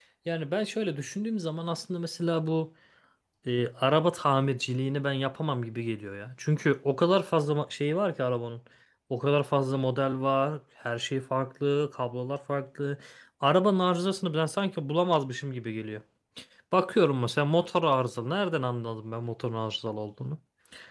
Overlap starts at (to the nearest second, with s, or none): none